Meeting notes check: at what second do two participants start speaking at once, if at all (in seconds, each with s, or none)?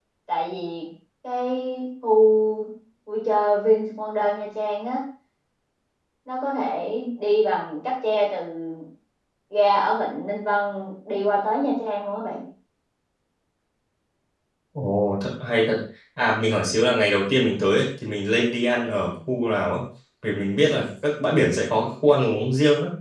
none